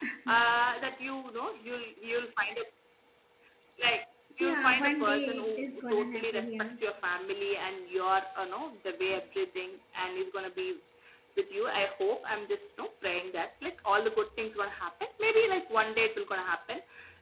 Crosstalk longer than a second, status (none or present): present